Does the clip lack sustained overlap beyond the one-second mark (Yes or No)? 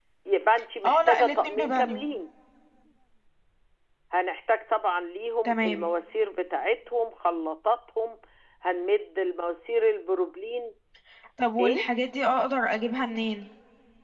No